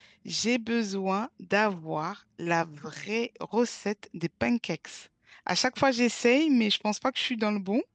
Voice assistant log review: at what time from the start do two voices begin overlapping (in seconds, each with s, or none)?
none